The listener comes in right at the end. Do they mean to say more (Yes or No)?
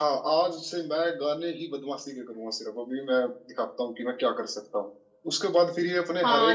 No